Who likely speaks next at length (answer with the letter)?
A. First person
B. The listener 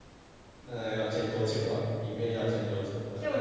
B